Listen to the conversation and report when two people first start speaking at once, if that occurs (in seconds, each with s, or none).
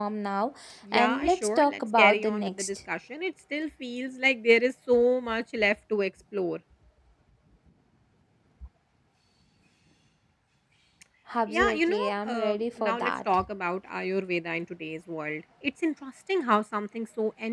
0.9 s